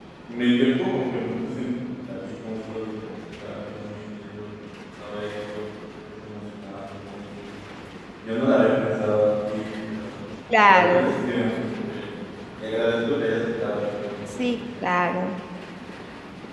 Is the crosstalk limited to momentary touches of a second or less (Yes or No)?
Yes